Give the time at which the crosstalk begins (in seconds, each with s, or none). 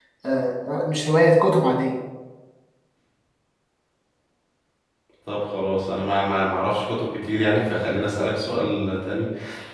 none